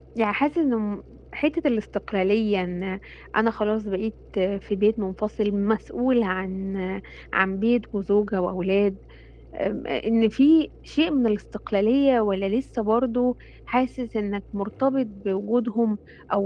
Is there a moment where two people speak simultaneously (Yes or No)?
No